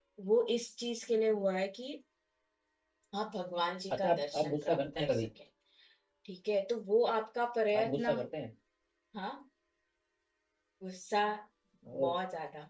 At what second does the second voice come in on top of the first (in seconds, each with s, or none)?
4.0 s